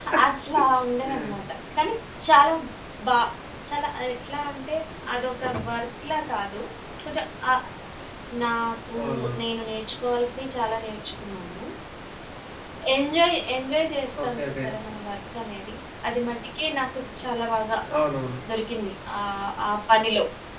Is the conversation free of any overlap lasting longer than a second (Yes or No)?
Yes